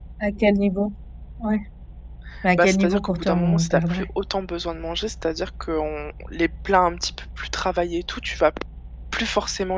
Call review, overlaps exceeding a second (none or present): present